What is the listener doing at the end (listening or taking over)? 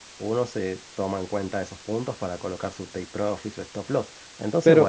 taking over